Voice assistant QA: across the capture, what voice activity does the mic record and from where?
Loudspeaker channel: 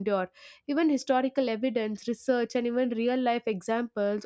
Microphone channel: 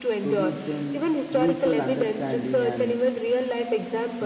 both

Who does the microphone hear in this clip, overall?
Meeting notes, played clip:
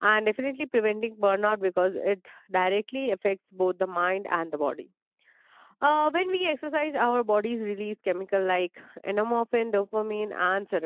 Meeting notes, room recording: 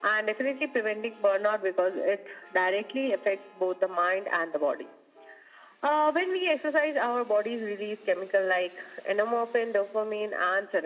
echo only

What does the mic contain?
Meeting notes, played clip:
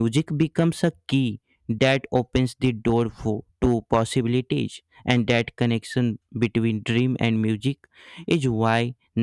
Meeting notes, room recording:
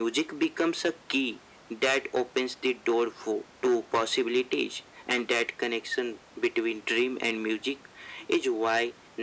echo only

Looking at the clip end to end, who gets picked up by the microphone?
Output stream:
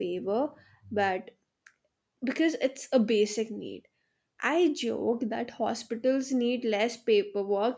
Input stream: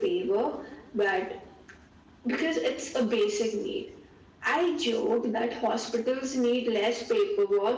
echo only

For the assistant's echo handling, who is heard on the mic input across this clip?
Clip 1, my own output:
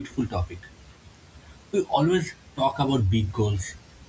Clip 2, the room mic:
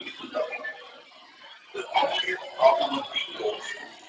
echo only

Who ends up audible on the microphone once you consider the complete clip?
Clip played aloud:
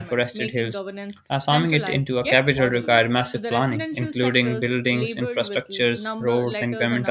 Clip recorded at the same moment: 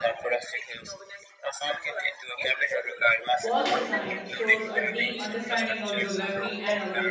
both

